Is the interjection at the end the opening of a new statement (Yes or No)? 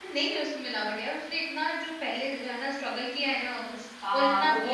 Yes